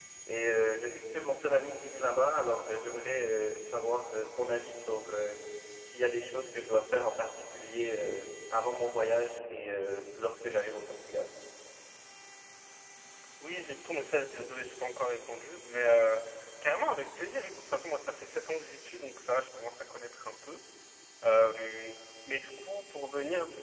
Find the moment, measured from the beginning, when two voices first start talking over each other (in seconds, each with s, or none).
none